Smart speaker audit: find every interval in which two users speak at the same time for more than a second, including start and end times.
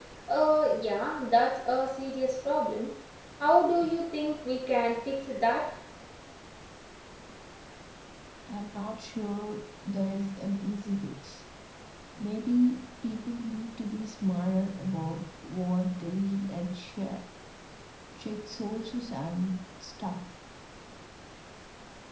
none

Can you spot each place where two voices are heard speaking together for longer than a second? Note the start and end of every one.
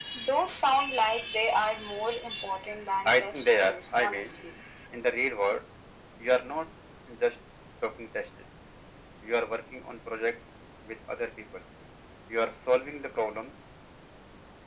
3.0-4.4

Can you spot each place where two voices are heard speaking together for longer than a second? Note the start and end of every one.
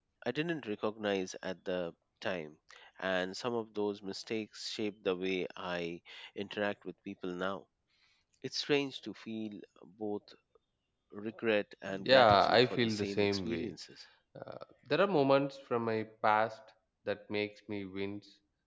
12.1-13.7

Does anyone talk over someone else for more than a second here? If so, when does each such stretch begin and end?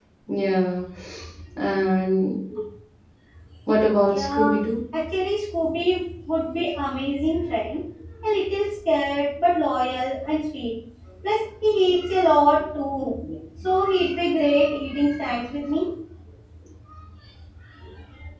none

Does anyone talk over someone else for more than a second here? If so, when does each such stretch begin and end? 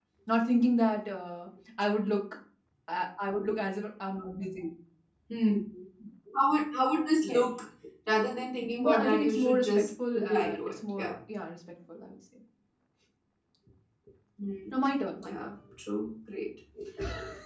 8.8-11.1

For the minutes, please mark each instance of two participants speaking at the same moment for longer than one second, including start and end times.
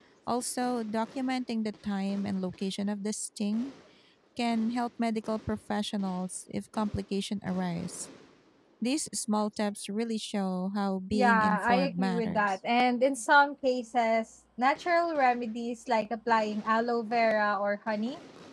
11.1-12.6

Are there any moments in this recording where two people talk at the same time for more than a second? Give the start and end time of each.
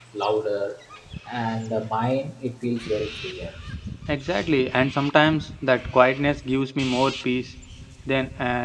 none

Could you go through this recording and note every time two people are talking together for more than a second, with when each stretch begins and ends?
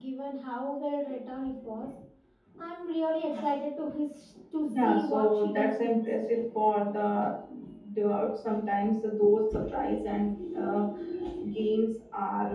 4.7-6.1

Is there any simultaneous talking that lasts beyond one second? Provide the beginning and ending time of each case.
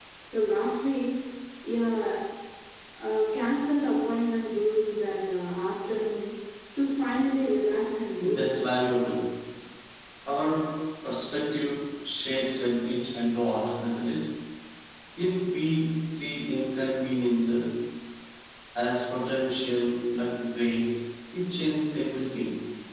none

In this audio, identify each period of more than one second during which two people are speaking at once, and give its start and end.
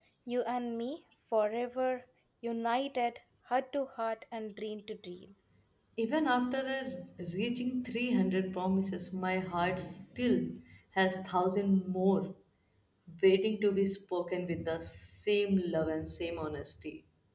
none

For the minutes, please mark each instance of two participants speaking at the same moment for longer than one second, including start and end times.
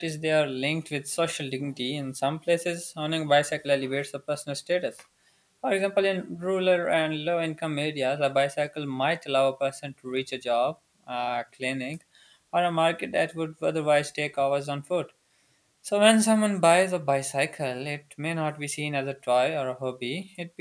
none

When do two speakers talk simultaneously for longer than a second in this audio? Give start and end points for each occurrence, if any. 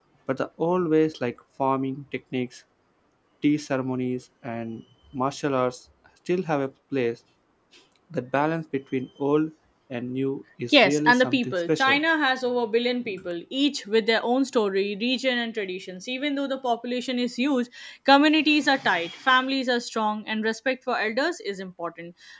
10.7-12.0

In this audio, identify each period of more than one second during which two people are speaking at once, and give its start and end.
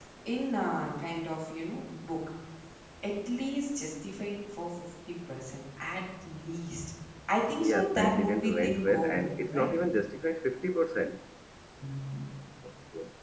7.6-9.8

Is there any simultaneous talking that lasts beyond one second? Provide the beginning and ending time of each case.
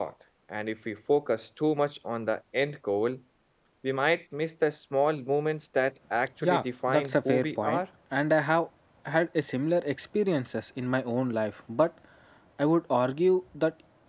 6.4-7.8

